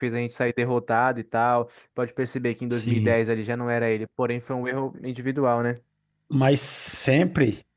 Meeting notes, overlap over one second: none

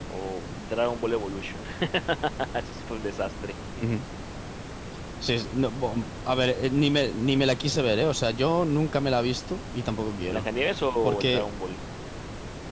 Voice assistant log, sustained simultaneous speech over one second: none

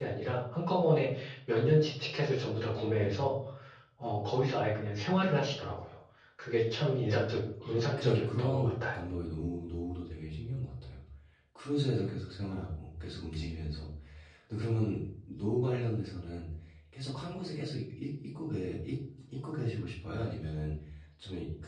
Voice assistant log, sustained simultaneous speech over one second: present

